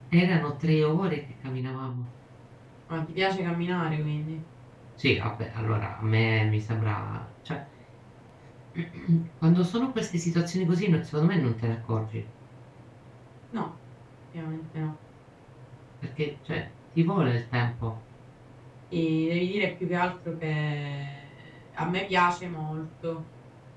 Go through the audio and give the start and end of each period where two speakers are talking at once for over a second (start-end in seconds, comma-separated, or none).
none